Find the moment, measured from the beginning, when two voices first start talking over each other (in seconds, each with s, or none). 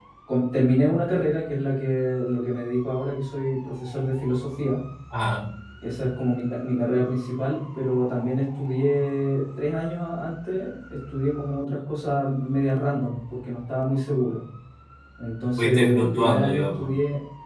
15.6 s